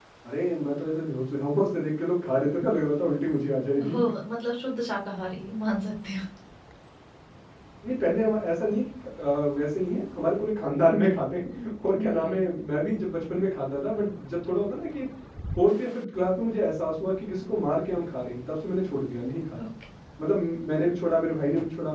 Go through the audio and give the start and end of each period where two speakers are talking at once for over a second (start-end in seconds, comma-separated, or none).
none